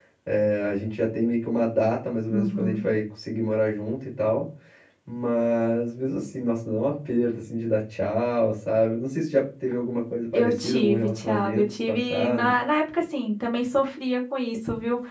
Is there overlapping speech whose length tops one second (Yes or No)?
Yes